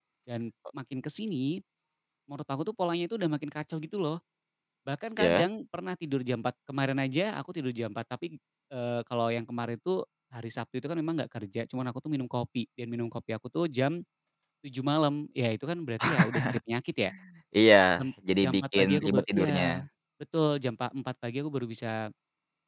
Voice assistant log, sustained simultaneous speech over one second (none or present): present